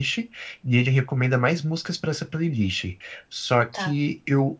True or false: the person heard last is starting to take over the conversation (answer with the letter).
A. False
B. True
A